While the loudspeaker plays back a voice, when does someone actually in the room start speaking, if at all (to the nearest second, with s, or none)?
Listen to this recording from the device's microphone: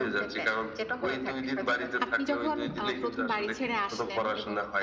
2 s